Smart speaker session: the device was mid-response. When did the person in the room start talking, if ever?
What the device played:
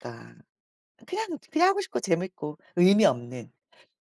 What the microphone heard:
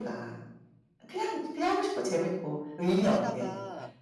2.9 s

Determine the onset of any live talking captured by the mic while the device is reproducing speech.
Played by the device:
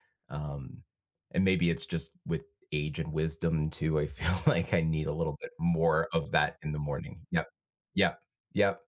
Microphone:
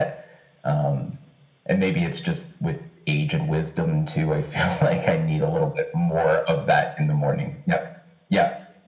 none

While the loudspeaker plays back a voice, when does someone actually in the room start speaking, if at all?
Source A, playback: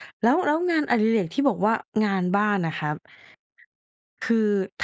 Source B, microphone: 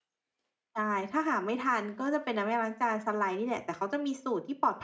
0.8 s

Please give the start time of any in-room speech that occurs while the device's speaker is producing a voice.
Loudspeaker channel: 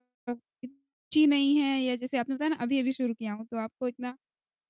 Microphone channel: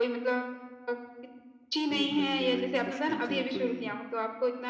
1.9 s

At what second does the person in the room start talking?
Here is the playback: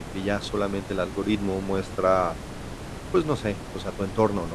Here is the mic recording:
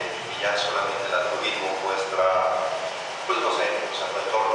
none

